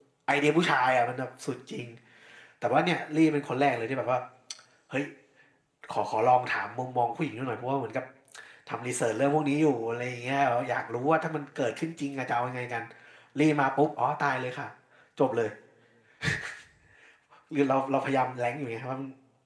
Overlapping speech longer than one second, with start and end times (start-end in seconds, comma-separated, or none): none